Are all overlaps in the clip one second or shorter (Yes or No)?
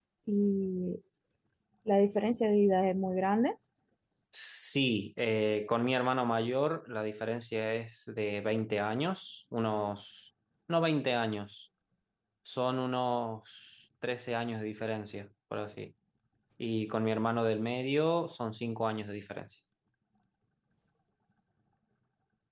Yes